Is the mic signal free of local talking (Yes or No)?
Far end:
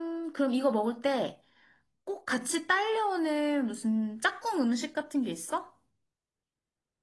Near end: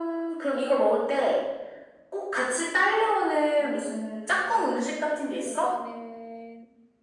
No